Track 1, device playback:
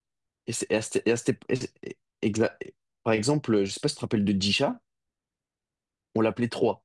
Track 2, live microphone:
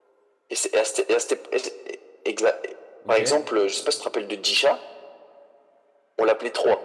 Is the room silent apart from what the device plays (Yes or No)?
No